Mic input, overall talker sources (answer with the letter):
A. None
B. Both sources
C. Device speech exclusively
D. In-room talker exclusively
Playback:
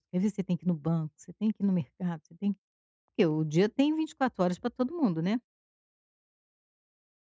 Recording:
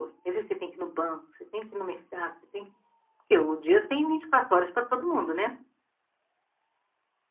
C